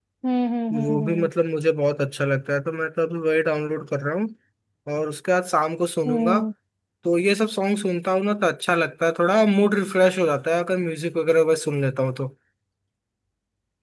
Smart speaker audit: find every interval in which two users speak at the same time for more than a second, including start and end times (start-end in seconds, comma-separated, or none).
none